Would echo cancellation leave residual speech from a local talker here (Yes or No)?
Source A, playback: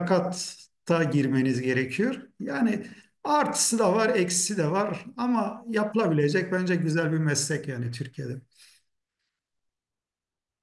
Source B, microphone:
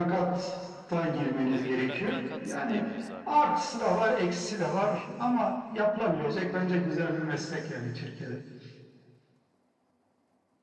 Yes